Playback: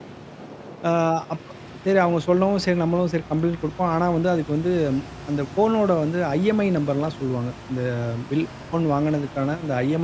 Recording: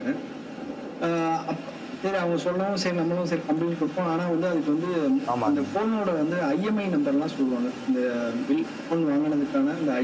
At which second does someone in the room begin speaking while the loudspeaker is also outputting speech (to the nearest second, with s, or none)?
5 s